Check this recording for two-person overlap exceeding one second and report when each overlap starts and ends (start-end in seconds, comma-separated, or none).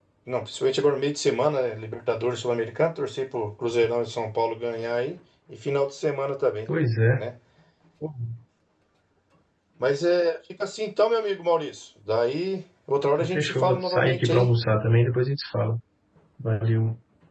13.2-14.5